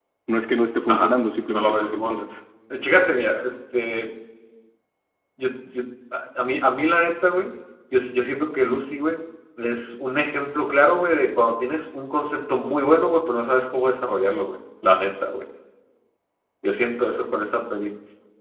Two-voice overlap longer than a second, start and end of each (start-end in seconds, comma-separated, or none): 0.9-2.2